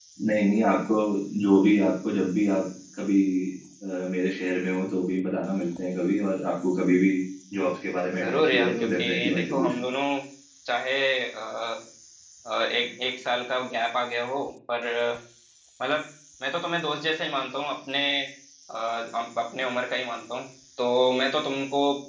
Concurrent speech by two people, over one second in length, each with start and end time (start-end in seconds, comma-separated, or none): 8.2-9.7